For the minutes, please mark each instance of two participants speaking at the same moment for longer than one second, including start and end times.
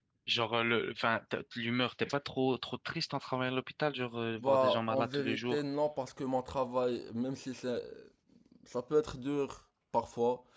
4.4-5.6

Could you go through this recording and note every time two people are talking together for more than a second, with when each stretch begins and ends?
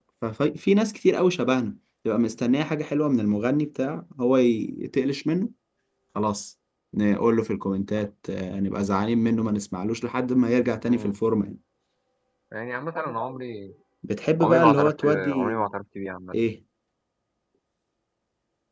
14.4-15.6

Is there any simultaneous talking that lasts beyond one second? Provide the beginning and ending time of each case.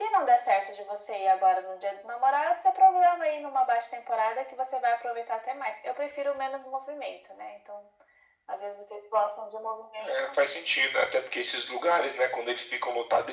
none

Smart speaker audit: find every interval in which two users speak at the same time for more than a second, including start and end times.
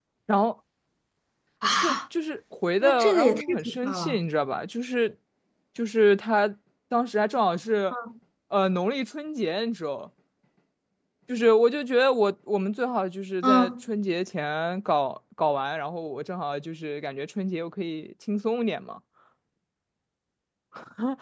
2.8-4.2

